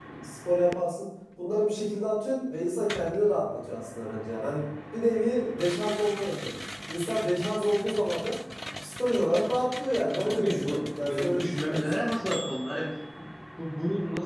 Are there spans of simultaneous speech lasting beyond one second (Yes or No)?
Yes